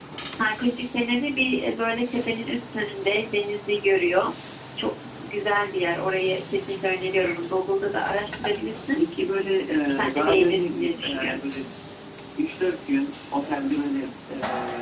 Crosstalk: present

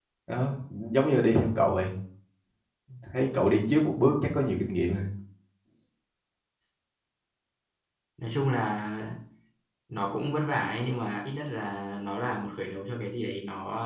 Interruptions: none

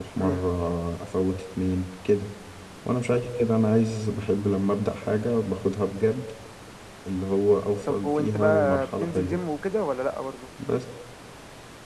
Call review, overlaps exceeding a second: present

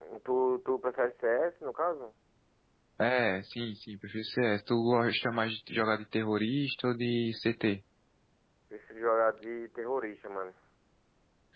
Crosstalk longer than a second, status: none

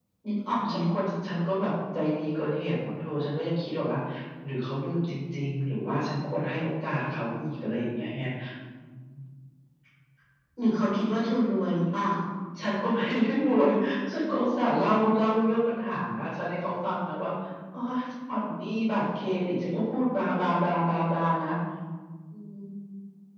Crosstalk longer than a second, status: none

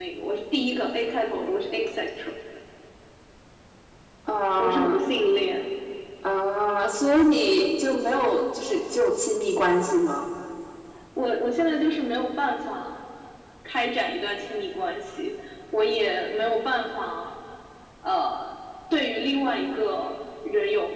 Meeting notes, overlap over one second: none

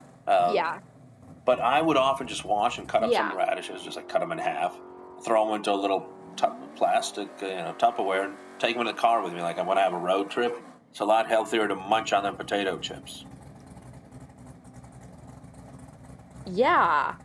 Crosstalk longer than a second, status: none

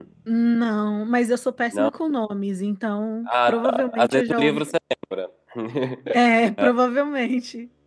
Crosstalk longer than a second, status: present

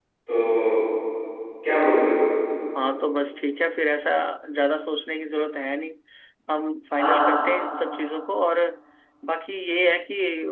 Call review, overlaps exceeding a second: none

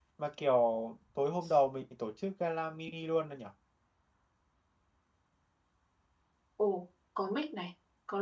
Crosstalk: none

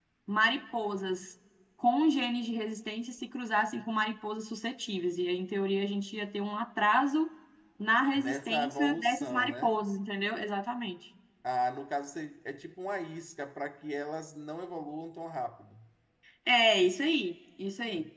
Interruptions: present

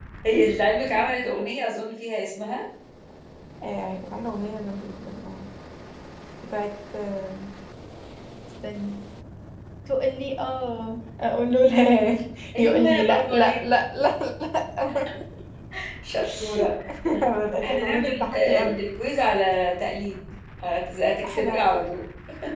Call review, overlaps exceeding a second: present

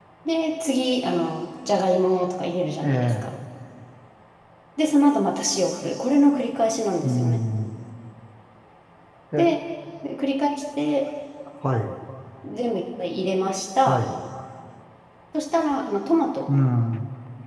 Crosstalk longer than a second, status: none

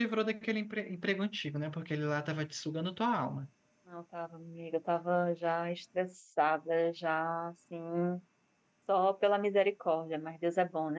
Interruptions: none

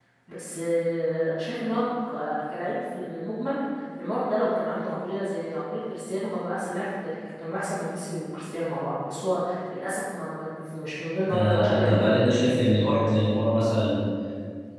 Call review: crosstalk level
present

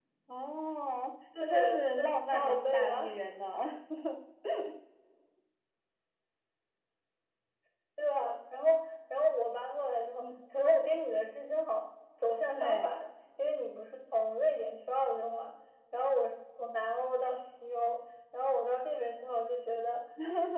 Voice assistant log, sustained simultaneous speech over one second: present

